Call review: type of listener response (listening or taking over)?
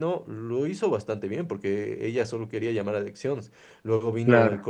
listening